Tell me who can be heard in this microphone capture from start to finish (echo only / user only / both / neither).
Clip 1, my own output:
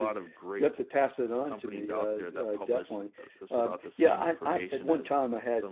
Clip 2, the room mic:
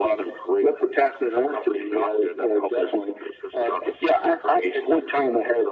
echo only